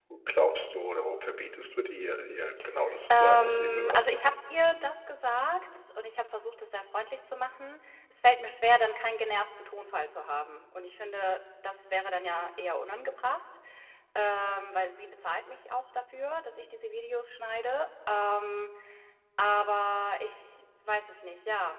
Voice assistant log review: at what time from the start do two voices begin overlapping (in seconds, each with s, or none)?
3.1 s